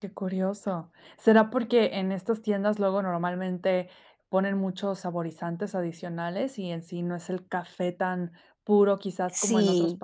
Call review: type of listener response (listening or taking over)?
taking over